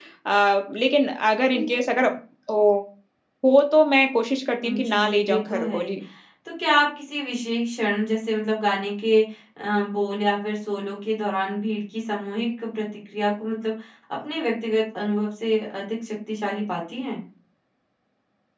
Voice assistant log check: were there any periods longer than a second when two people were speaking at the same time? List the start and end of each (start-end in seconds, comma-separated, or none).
4.6-6.0